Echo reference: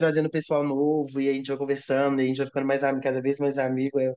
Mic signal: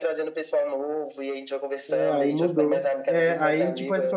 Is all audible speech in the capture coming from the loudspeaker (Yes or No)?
No